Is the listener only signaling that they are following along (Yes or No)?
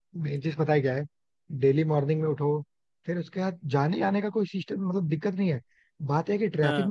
Yes